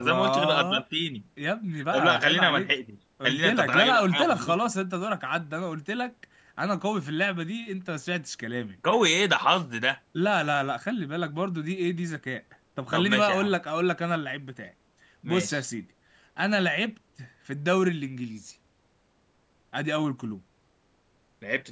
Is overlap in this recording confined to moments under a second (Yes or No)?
No